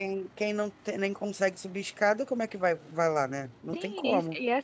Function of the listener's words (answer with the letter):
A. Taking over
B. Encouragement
A